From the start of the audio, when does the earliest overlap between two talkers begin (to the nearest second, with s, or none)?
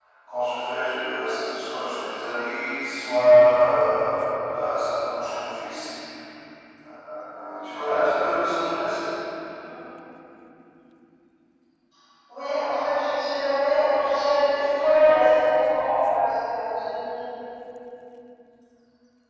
none